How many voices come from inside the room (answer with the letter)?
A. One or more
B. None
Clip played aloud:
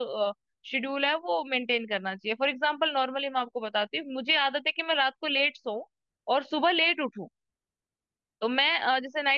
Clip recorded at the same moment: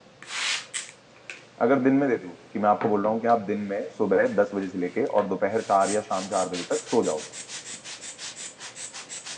A